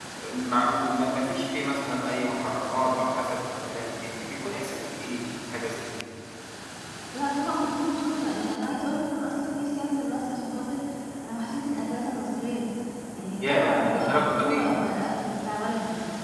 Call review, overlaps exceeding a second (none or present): present